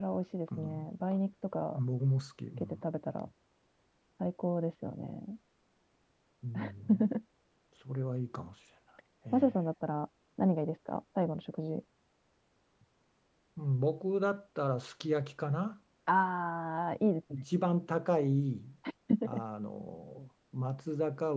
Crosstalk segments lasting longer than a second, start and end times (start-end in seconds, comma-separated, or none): none